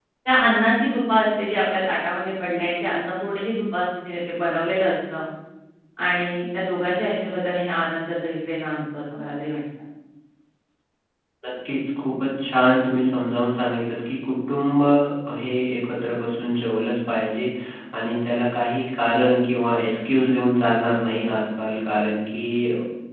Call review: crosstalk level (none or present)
none